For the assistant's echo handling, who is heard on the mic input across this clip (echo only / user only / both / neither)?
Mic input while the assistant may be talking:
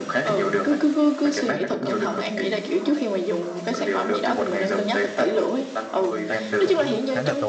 both